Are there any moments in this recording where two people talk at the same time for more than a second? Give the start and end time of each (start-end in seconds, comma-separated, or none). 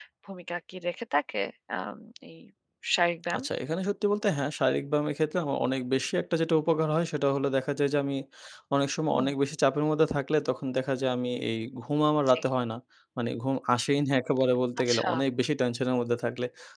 none